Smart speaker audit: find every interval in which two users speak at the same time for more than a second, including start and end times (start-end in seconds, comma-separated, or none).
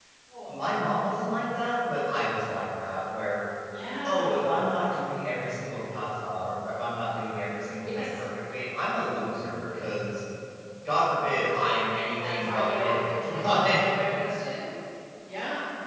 12.2-13.9